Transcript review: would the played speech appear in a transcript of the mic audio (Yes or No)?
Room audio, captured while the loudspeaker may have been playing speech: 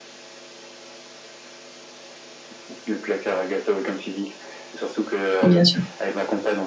Yes